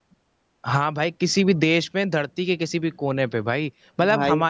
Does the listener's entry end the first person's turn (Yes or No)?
No